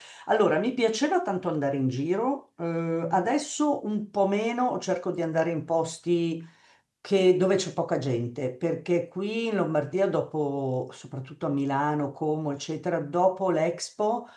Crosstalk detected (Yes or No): No